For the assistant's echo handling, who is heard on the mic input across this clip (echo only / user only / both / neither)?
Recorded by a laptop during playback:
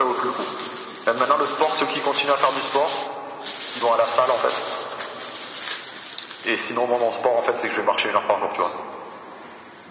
echo only